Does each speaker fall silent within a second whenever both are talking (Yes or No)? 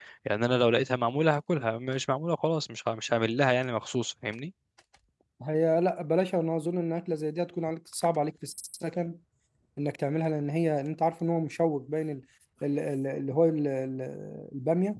Yes